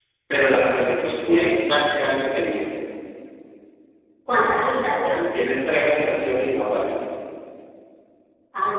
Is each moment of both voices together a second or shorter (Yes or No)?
Yes